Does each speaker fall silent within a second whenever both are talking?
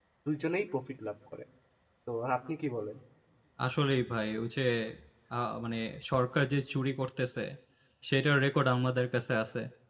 Yes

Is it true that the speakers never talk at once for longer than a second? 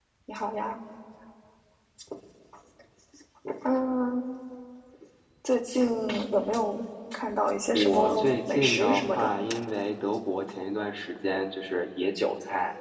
No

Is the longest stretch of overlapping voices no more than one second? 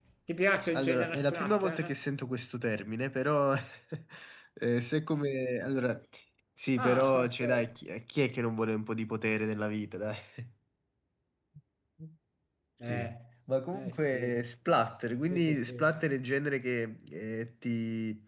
No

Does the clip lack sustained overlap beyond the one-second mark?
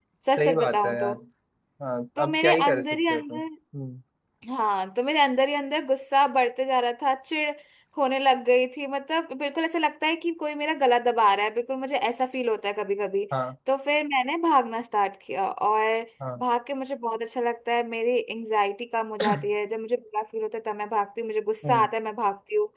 No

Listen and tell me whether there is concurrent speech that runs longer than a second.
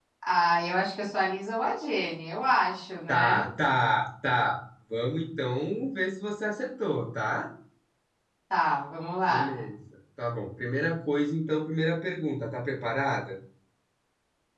No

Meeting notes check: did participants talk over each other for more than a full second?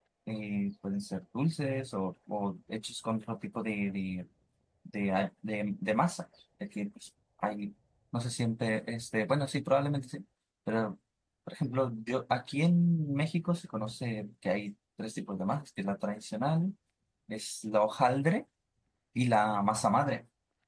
No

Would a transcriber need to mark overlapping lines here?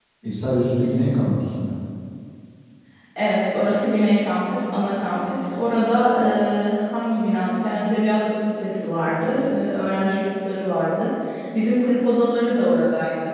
No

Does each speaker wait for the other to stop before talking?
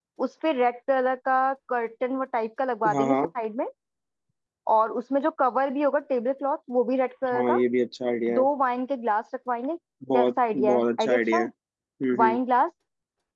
No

